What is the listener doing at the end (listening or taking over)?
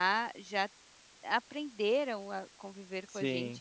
listening